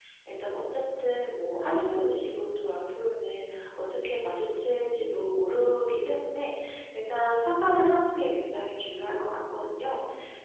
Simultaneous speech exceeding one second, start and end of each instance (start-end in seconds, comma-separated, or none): none